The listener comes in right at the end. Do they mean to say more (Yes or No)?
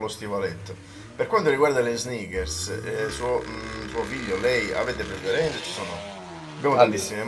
No